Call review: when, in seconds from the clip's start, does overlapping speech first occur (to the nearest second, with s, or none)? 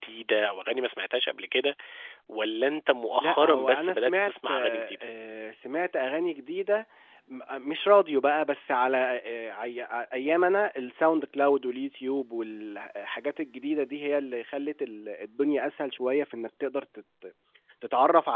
3 s